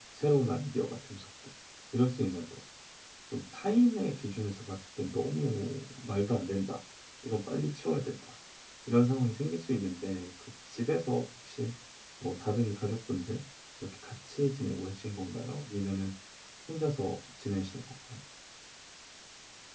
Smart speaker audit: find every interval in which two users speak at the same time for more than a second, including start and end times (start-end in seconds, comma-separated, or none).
none